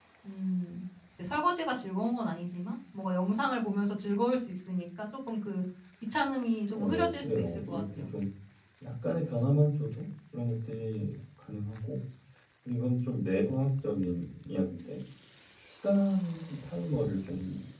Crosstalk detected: Yes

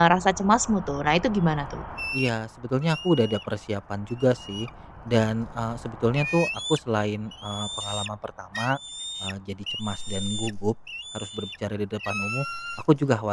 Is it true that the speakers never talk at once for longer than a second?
Yes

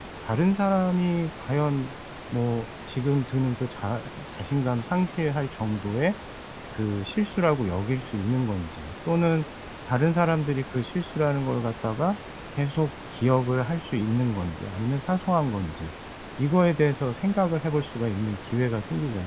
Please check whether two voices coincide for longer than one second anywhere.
No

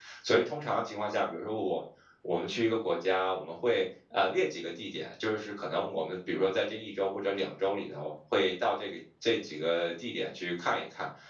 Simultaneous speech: No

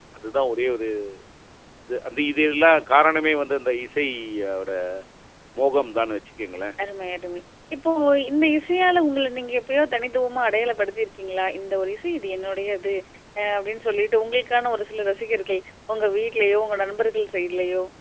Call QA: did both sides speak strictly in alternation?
Yes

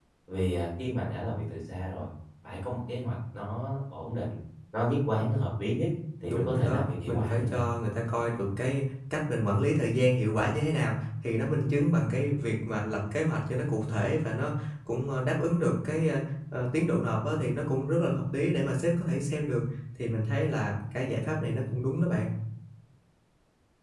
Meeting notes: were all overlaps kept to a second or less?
No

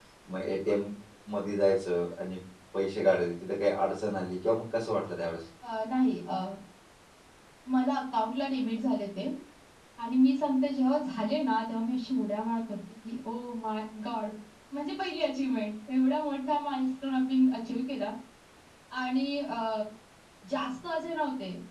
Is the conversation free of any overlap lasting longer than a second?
Yes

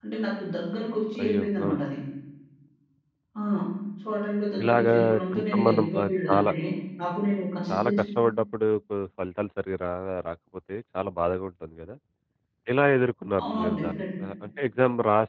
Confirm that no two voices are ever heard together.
No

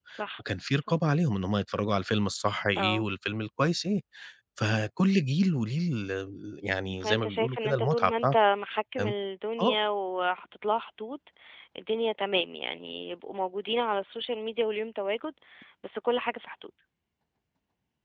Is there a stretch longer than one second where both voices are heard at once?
Yes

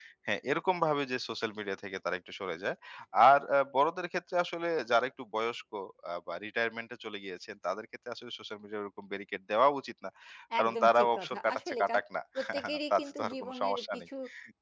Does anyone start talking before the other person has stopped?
Yes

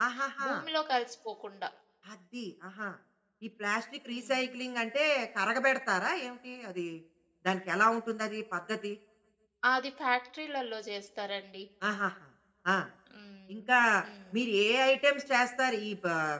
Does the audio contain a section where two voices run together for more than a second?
No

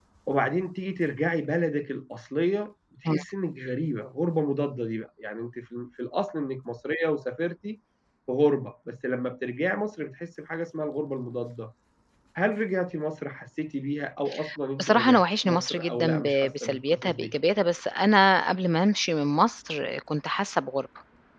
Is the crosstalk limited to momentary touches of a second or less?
No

